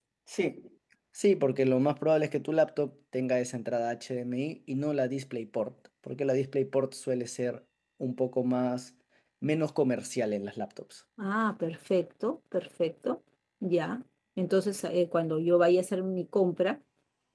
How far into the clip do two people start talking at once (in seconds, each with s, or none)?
none